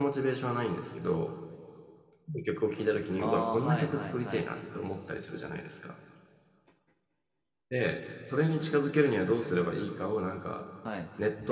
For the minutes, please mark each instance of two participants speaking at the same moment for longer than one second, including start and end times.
3.2-4.5

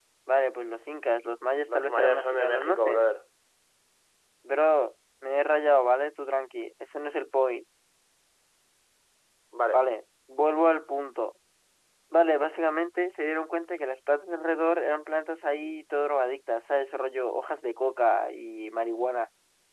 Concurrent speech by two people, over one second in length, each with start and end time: 1.7-3.0

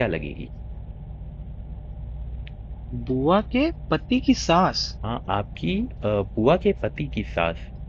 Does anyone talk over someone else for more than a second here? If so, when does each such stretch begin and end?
none

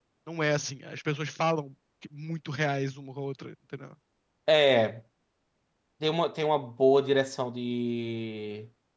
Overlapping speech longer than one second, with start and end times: none

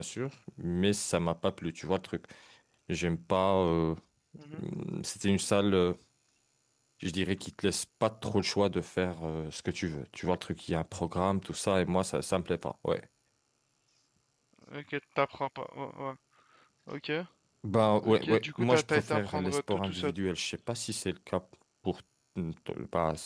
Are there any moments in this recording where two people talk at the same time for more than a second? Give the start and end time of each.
18.0-20.1

